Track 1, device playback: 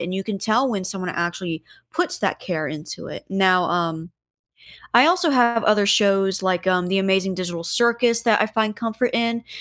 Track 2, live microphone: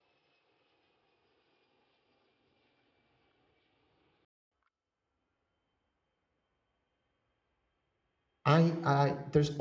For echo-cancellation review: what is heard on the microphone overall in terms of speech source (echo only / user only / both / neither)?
user only